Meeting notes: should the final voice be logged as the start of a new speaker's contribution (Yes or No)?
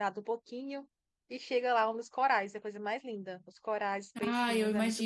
Yes